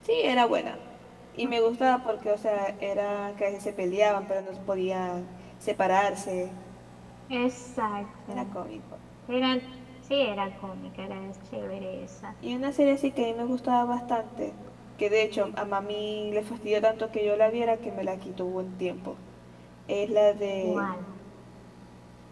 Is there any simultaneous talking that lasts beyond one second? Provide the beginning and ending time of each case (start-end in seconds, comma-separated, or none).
none